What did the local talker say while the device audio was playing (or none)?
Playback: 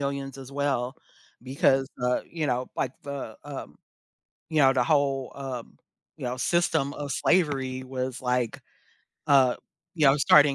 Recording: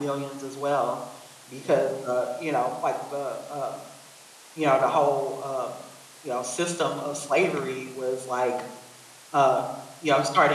none